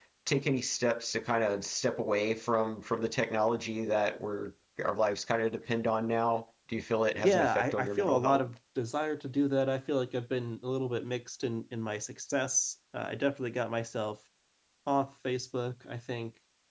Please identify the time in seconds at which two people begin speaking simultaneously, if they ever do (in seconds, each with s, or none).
7.2 s